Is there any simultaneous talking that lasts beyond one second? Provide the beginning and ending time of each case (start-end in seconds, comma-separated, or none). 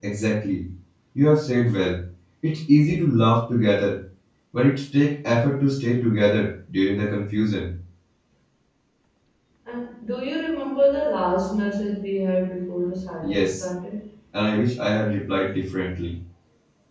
none